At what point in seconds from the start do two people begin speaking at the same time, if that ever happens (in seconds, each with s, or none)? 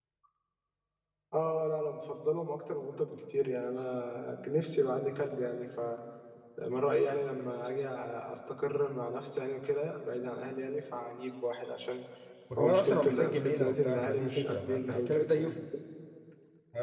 12.6 s